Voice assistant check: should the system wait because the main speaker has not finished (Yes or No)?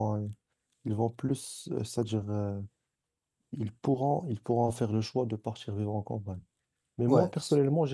Yes